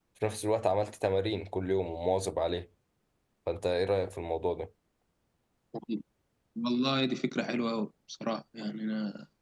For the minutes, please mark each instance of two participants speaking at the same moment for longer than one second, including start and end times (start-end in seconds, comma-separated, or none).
none